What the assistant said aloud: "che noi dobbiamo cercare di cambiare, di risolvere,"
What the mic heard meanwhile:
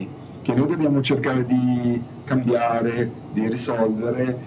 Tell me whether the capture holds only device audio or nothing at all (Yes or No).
Yes